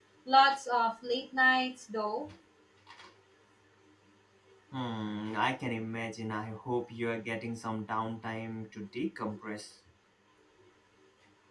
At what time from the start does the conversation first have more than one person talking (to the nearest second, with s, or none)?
none